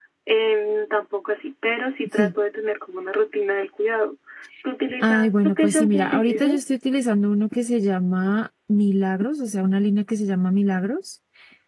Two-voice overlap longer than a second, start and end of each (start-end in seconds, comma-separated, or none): 5.0-6.6